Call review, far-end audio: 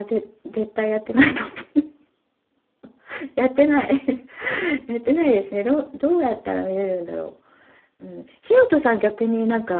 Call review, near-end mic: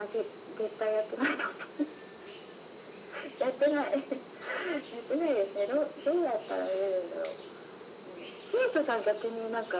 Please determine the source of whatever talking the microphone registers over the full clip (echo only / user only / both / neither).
echo only